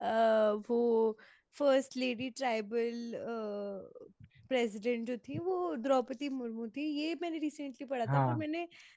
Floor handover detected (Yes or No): No